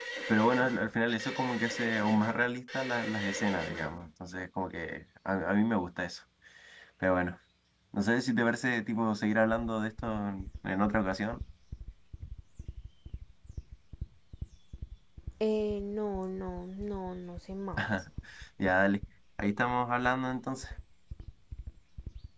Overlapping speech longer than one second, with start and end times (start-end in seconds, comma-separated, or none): none